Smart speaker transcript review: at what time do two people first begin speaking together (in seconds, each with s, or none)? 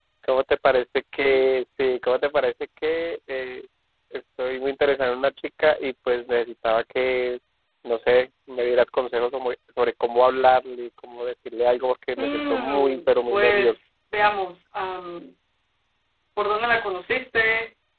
12.2 s